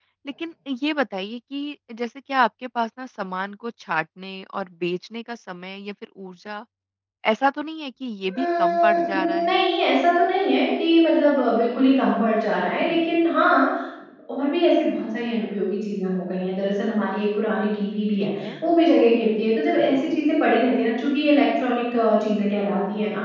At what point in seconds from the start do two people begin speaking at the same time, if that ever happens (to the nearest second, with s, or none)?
8 s